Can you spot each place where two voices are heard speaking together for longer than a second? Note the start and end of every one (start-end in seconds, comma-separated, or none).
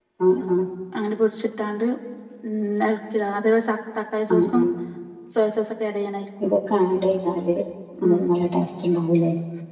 none